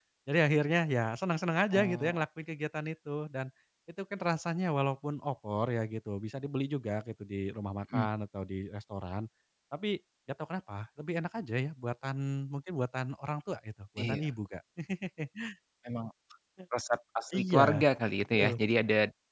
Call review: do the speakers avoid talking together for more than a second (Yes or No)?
Yes